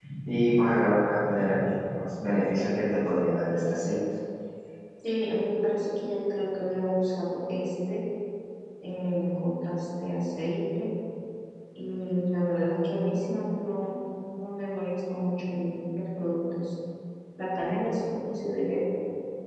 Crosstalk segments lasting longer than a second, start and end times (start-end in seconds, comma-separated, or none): none